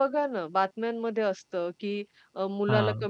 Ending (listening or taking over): listening